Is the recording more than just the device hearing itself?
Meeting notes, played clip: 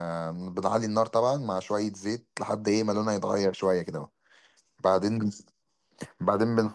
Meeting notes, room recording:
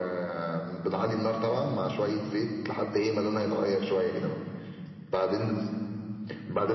No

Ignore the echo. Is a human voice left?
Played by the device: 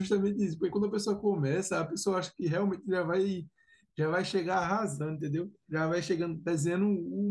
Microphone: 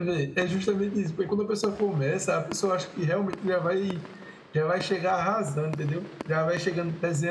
No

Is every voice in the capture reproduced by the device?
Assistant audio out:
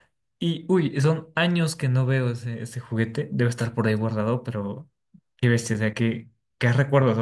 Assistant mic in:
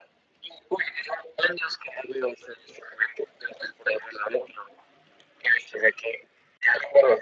Yes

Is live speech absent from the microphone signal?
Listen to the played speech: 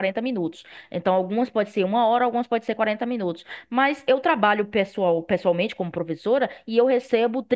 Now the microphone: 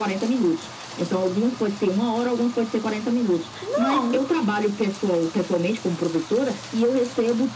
No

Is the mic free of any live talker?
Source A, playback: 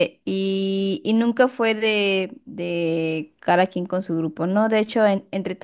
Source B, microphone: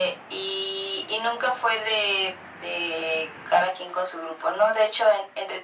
Yes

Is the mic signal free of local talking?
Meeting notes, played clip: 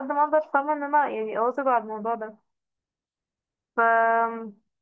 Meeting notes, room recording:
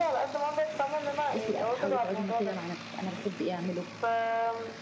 No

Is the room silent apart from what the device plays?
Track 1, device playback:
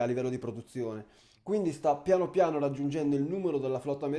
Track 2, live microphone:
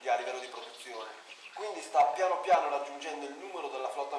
Yes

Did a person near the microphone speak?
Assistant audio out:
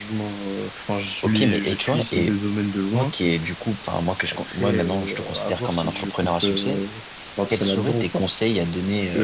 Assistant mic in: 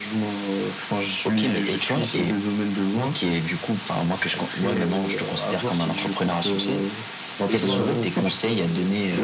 Yes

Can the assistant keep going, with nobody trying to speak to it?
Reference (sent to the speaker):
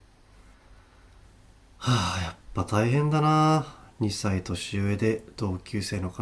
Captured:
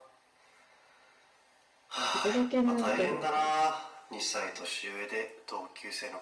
No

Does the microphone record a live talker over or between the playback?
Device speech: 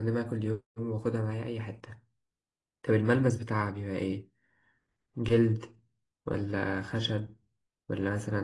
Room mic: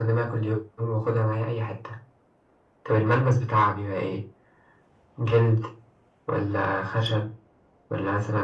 No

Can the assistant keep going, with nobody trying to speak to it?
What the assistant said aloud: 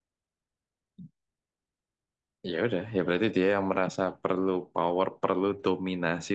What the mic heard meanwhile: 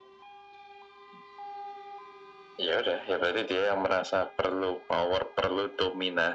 Yes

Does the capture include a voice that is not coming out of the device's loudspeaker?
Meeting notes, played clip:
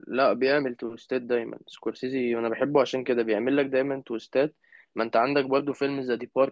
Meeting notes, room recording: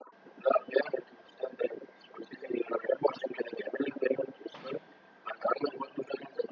No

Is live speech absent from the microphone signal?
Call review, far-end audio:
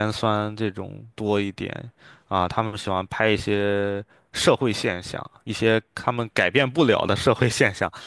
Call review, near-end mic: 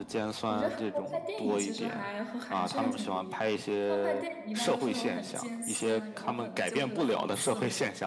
No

